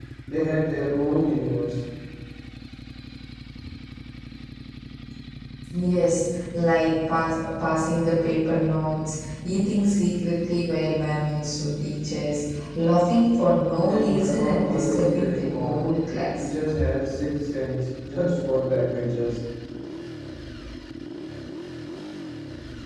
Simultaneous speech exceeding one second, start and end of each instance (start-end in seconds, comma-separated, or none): 13.8-15.8